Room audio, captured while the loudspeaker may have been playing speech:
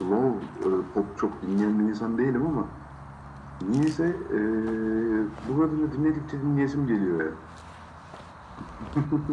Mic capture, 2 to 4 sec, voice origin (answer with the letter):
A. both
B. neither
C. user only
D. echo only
D